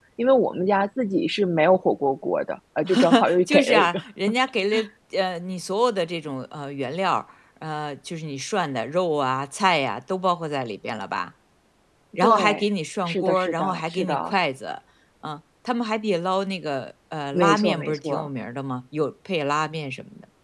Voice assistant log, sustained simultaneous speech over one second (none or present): present